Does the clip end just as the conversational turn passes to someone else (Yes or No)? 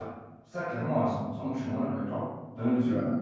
No